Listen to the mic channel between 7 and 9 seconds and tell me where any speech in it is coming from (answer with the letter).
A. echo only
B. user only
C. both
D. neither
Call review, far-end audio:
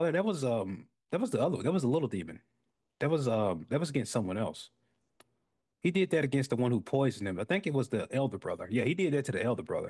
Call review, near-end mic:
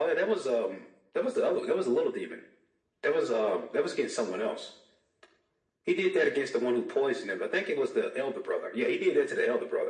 A